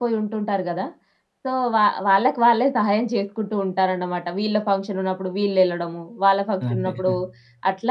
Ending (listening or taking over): listening